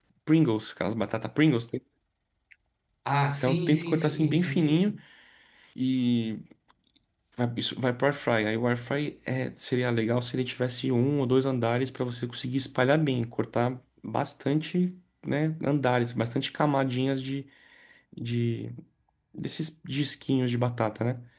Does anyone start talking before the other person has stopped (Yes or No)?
Yes